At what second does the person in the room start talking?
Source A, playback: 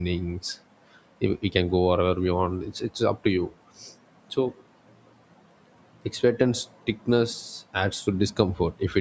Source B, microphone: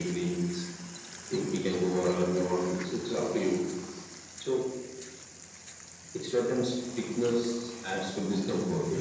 none

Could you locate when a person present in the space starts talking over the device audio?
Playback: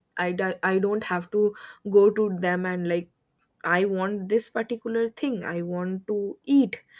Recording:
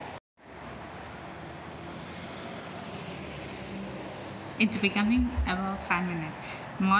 4.6 s

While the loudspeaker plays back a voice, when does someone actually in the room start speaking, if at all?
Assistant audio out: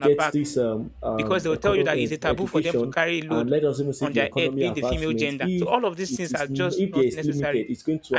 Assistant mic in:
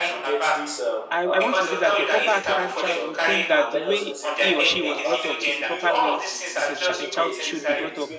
1.1 s

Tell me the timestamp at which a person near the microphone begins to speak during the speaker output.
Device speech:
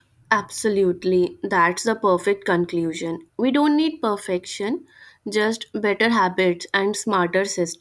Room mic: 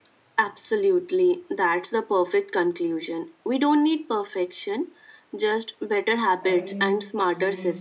6.4 s

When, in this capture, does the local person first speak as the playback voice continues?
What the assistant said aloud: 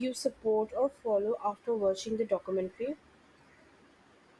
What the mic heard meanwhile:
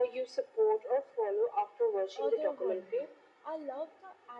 2.1 s

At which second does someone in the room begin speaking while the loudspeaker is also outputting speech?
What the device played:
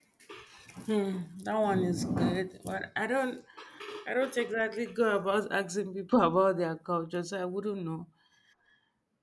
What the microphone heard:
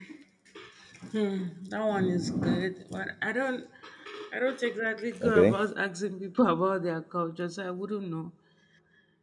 5.2 s

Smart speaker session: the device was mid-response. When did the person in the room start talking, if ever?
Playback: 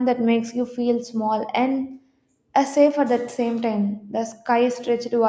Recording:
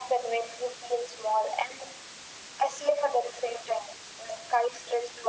none

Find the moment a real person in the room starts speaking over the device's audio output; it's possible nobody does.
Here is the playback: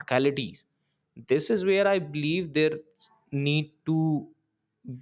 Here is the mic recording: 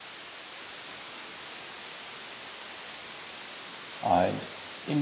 4.0 s

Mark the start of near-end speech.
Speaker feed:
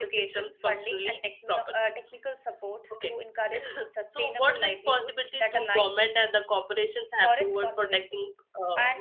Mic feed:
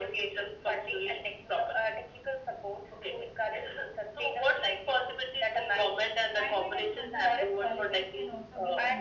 6.3 s

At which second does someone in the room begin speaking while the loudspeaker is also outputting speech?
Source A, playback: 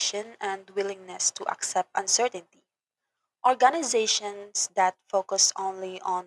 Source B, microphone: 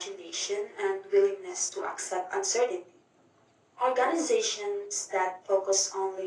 none

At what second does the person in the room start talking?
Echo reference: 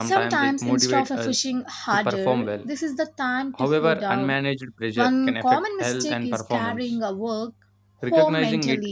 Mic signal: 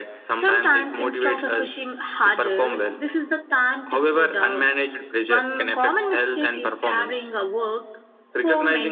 none

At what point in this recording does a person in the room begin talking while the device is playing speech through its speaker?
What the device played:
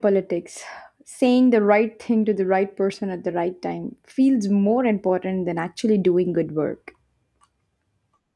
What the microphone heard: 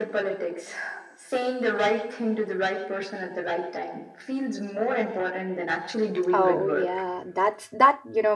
6.3 s

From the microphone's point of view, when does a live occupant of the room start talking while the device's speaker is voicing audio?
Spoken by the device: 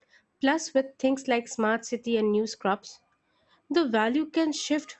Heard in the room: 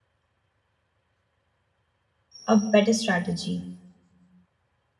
2.5 s

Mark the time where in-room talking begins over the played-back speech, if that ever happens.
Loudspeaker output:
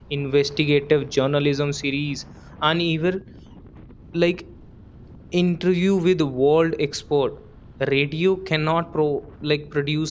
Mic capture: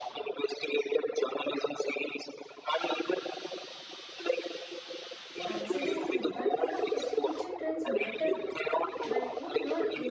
5.4 s

